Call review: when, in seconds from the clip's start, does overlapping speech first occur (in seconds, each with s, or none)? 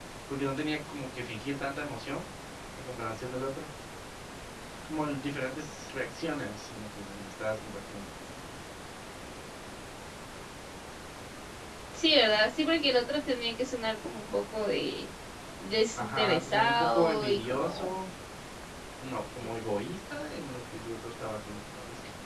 16.0 s